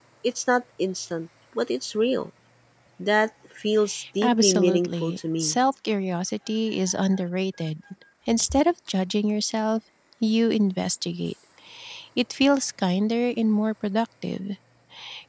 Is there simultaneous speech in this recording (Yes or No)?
Yes